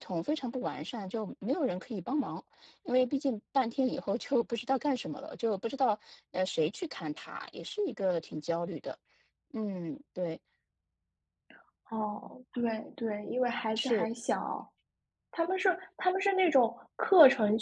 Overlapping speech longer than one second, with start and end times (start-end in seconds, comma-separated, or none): none